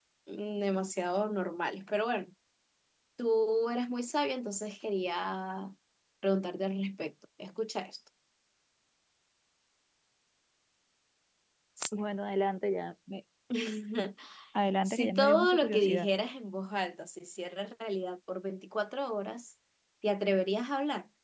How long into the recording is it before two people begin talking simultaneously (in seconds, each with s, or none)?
14.8 s